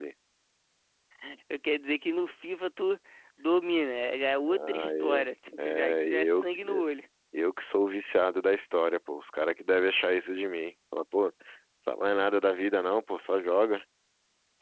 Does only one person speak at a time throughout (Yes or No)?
No